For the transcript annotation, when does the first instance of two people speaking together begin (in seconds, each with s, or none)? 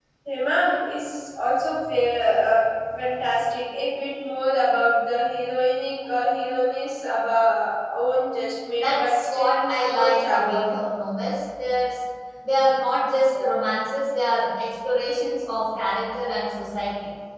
8.8 s